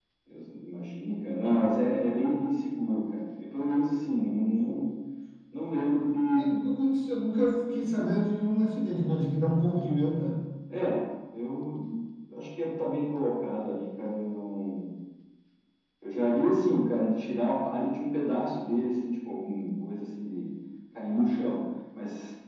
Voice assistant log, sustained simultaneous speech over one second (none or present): none